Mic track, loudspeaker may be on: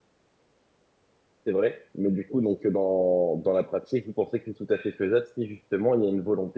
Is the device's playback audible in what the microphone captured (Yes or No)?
No